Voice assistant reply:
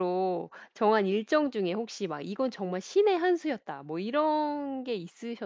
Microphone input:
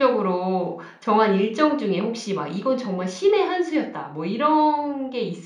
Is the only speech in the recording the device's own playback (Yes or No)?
Yes